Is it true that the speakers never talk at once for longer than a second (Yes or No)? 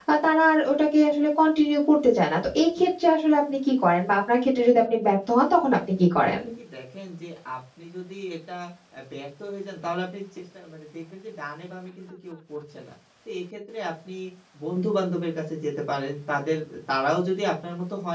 Yes